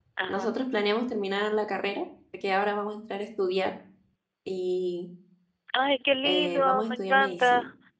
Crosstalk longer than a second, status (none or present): present